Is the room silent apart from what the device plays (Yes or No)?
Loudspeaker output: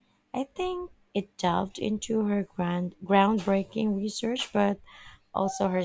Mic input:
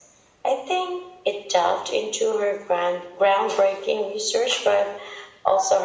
Yes